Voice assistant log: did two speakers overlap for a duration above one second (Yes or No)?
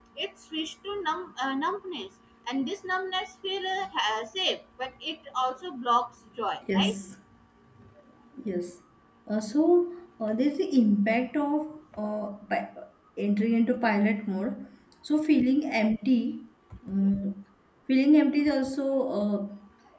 No